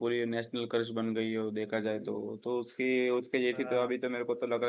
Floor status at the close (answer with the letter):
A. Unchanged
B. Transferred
A